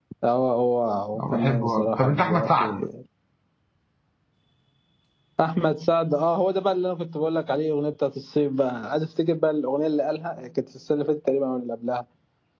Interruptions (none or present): present